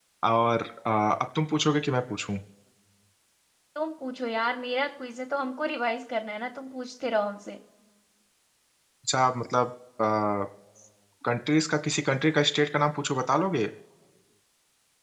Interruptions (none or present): none